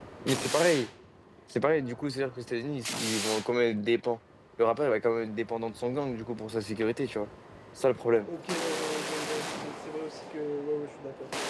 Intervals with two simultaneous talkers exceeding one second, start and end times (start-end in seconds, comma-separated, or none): none